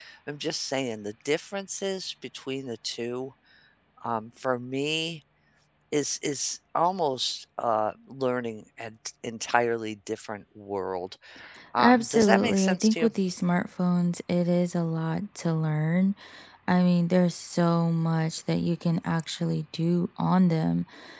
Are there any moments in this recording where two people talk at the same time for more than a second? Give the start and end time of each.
11.8-13.1

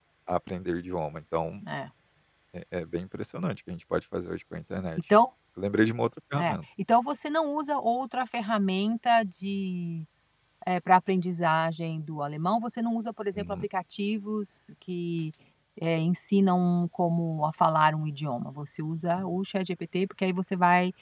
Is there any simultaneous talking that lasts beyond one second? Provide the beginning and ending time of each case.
none

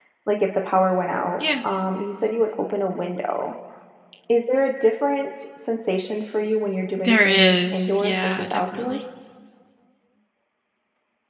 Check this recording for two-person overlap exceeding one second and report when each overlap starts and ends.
7.0-9.0

